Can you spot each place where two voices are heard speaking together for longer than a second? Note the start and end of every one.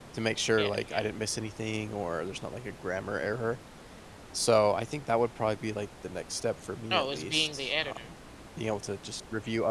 6.9-8.1

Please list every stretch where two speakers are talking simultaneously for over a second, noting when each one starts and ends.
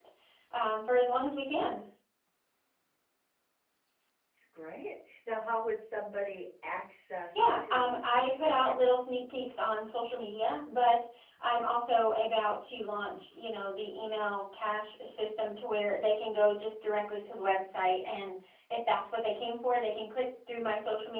7.4-8.8

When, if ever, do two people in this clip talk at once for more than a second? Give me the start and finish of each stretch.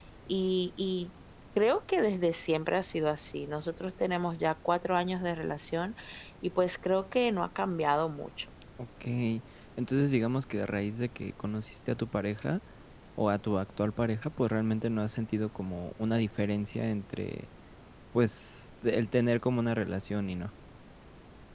none

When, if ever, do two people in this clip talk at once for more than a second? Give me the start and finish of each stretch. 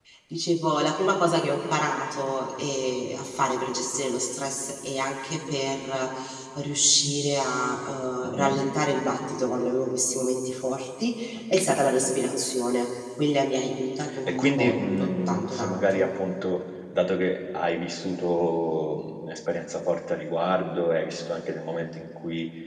14.4-16.1

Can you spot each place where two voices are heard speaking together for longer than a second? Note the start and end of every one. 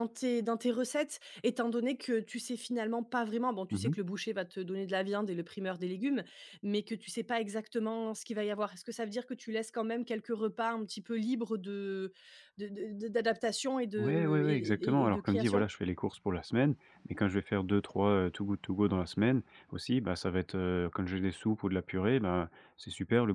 14.0-15.7

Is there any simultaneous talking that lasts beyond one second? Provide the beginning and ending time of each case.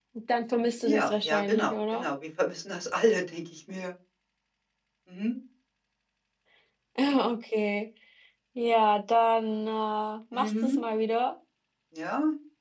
0.8-2.1

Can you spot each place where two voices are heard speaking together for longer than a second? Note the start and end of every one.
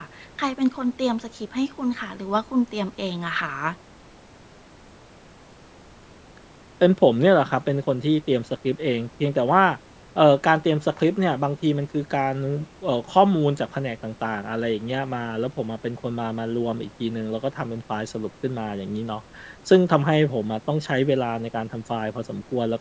none

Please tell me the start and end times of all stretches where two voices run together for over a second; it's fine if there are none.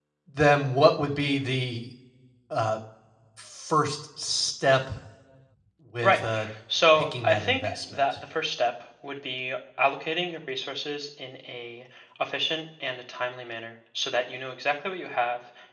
7.0-8.2

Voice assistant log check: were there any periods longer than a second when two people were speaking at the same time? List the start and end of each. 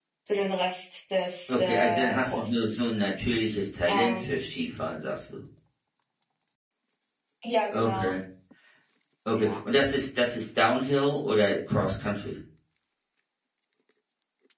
1.5-2.7

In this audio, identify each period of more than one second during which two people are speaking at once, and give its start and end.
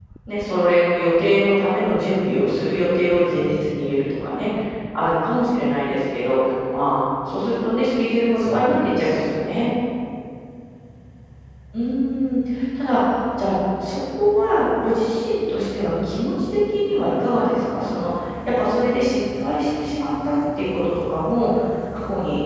8.3-9.7

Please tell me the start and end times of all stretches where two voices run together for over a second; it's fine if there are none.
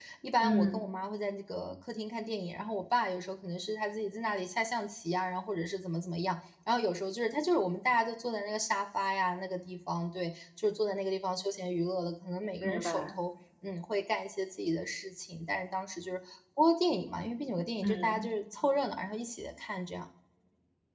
none

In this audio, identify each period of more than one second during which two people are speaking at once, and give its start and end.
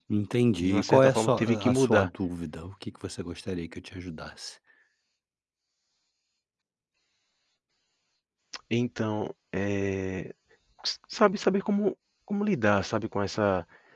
0.6-2.1

